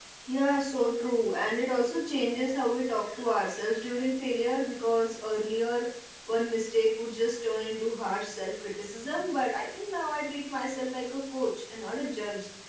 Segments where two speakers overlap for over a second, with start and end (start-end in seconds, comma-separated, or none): none